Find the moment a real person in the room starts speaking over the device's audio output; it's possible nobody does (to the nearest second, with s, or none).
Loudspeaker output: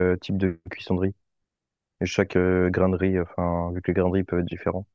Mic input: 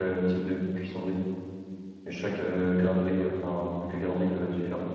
none